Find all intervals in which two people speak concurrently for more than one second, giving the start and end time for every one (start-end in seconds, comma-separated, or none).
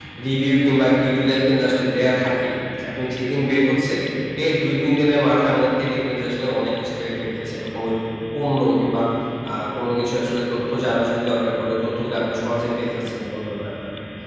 none